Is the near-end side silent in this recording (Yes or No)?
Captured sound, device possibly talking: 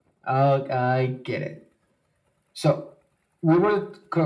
Yes